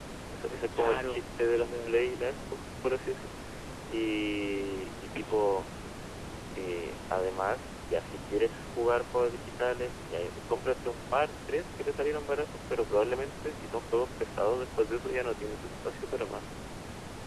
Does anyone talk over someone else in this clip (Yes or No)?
Yes